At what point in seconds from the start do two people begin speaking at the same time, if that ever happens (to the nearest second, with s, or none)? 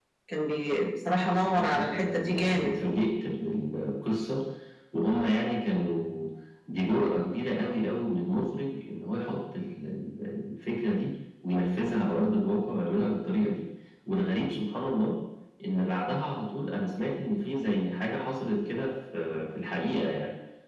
1 s